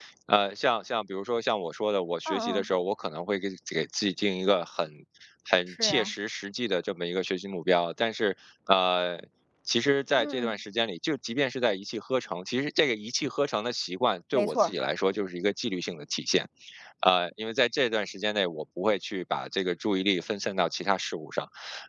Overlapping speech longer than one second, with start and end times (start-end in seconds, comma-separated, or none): none